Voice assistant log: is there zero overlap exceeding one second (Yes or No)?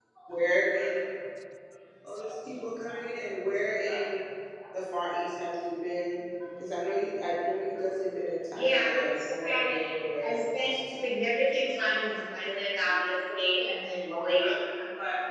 No